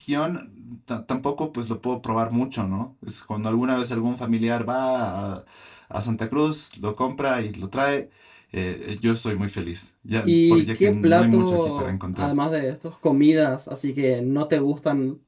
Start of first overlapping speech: 10.2 s

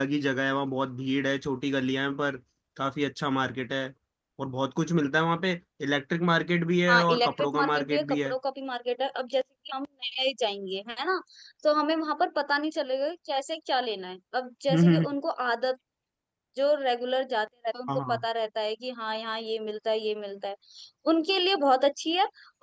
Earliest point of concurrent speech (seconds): 6.9 s

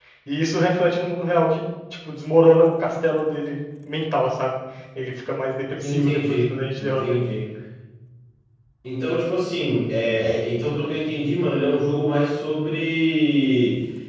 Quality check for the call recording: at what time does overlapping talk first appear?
5.8 s

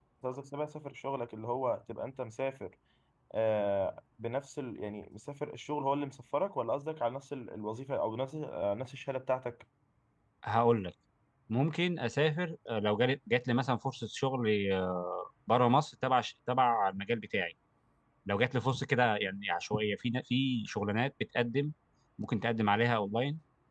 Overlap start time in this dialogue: none

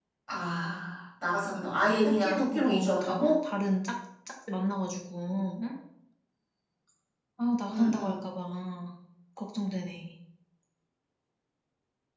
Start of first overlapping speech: 2.0 s

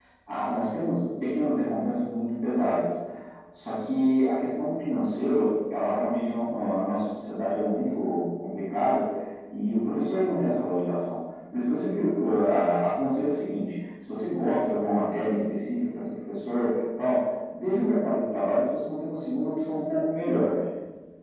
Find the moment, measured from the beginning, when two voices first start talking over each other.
none

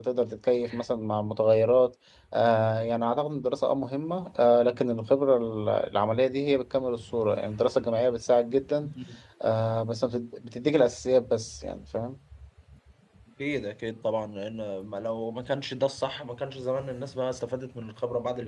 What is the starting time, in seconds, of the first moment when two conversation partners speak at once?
none

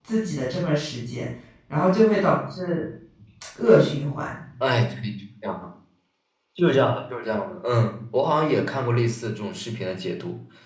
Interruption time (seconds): none

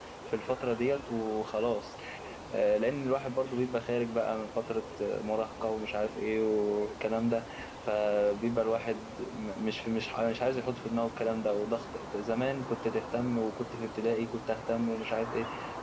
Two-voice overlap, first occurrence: none

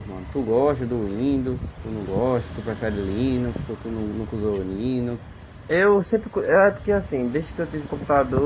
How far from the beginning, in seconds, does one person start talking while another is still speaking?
none

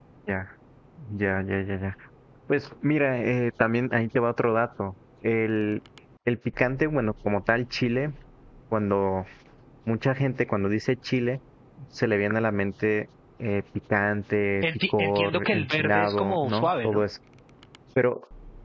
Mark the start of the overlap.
14.9 s

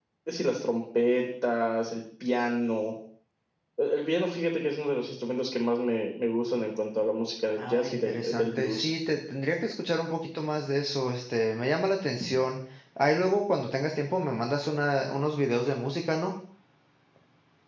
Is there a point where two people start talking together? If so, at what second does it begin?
7.6 s

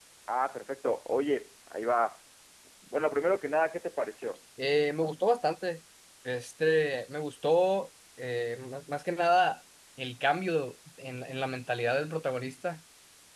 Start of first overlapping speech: none

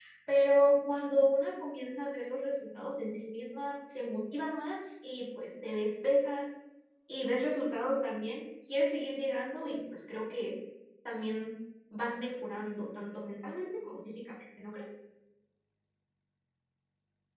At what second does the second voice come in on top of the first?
none

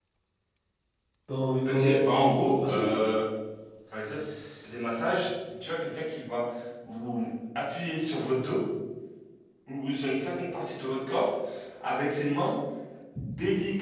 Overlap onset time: 1.6 s

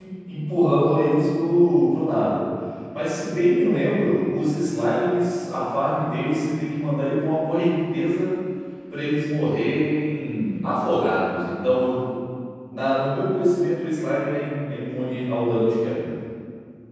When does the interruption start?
none

